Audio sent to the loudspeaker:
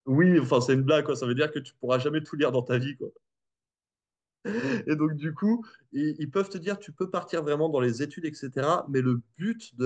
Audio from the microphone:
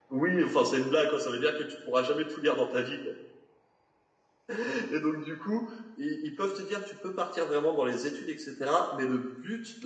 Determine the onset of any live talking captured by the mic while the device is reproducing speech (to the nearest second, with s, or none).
none